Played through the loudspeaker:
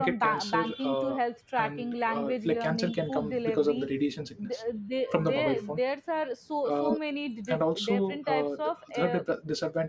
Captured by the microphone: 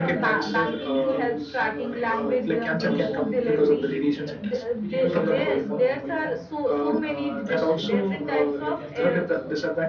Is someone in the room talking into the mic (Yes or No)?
Yes